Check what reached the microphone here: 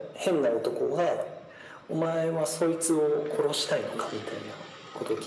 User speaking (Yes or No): No